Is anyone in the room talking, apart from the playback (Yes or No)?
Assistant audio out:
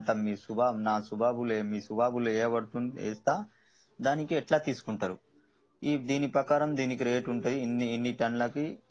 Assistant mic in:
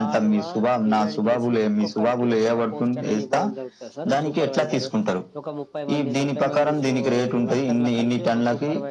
Yes